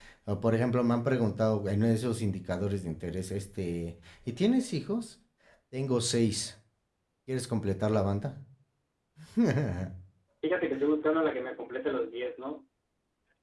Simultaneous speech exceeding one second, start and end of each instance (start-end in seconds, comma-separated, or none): none